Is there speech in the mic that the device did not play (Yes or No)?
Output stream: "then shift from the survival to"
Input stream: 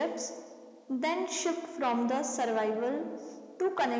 No